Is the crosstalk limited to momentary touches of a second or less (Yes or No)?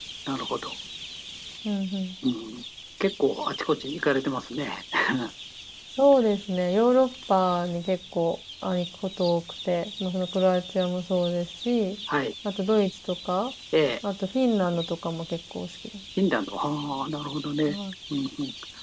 Yes